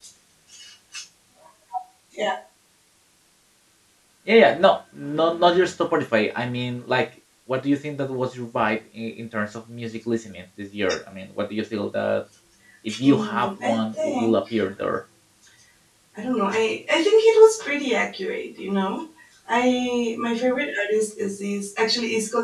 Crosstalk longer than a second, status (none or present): present